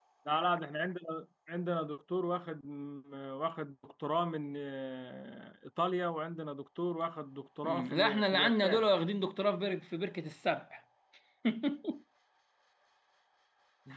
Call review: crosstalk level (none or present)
present